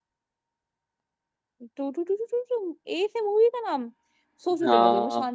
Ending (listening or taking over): listening